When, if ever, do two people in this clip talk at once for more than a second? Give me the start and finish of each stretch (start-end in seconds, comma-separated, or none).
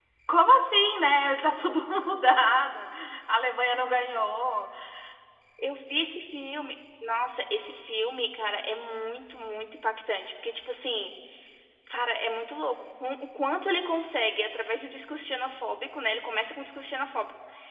none